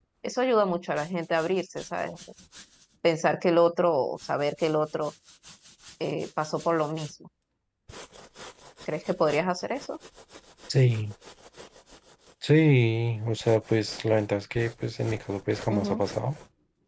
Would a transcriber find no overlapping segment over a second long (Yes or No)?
Yes